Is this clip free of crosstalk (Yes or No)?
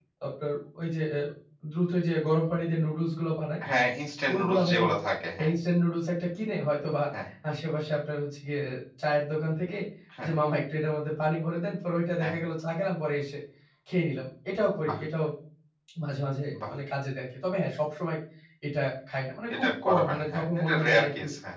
No